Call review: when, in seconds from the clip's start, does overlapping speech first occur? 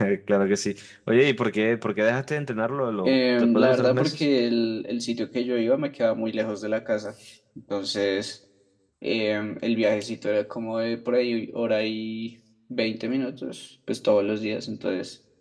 3 s

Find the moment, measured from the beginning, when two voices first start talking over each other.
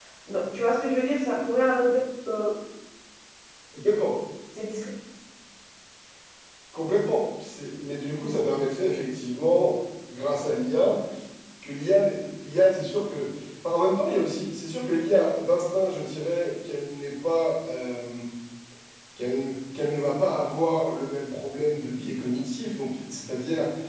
none

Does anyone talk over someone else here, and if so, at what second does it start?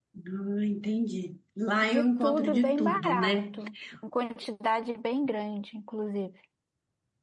2 s

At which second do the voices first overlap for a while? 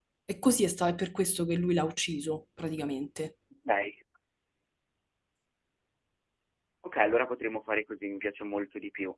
none

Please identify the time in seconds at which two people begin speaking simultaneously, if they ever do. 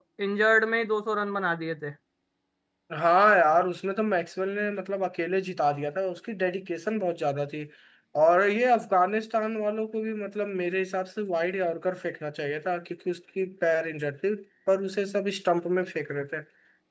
none

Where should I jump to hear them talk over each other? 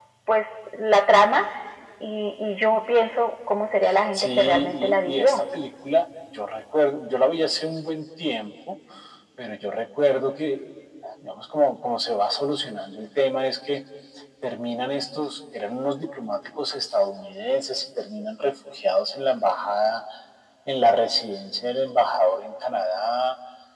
4 s

